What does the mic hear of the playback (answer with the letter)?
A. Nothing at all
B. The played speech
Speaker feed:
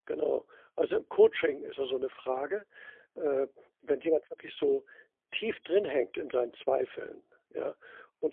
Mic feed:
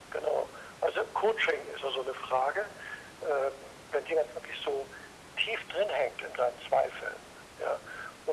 B